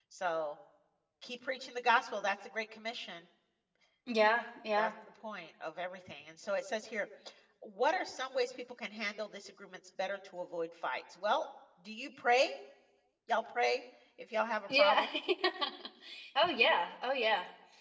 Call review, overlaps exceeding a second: none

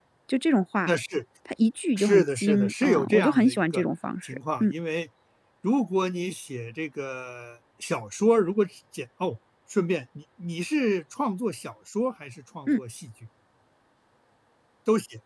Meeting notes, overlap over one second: present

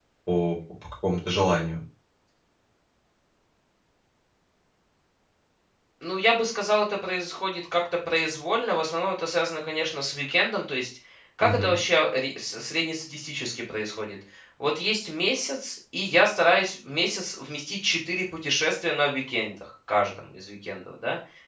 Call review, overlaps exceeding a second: none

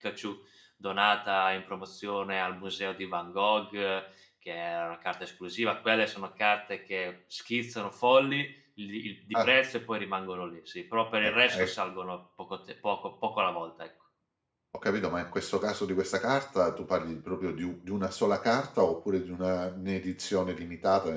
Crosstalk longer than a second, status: none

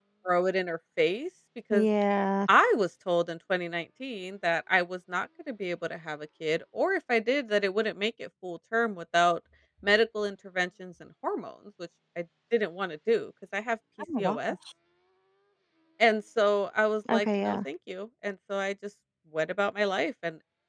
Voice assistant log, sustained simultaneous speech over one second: none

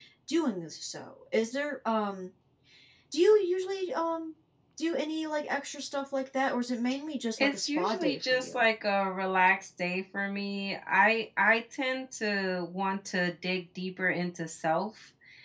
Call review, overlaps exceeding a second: present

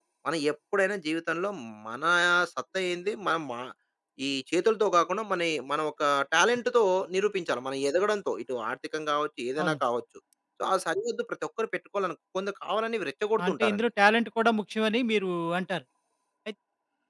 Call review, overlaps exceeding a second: none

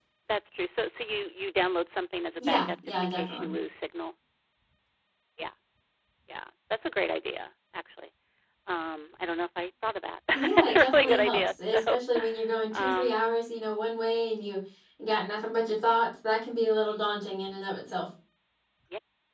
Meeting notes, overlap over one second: present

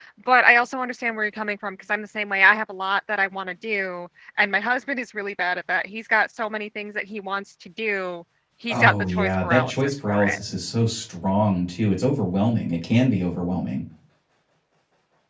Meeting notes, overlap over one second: present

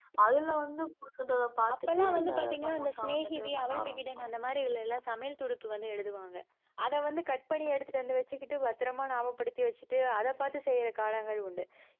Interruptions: present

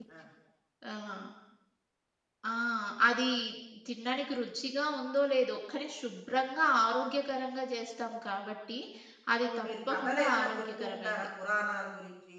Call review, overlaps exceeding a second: present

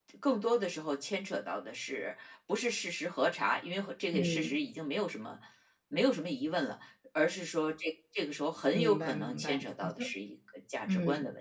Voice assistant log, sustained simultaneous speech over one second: present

